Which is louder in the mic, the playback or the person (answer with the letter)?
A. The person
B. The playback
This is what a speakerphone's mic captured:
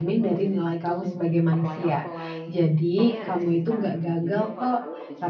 A